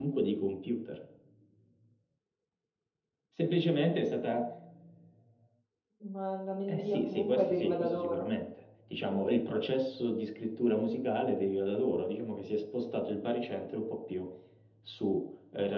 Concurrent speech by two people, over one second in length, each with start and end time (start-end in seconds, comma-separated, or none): 6.7-8.2